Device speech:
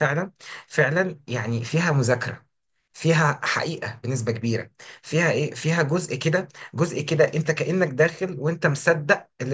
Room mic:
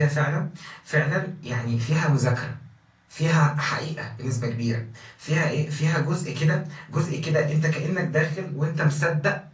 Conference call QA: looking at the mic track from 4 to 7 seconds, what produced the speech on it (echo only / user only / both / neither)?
echo only